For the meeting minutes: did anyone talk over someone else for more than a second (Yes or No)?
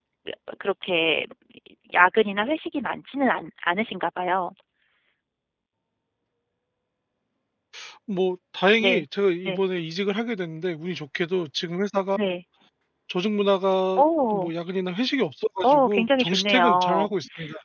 Yes